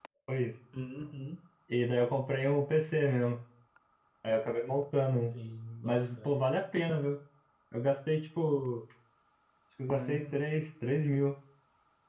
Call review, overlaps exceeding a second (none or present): none